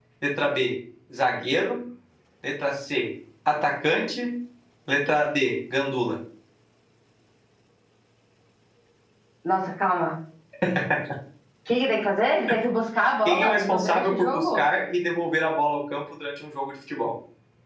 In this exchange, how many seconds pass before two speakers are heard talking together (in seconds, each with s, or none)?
13.2 s